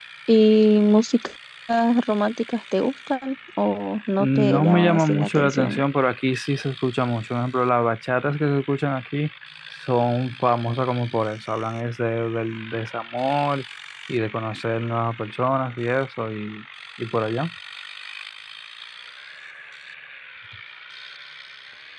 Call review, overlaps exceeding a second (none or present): present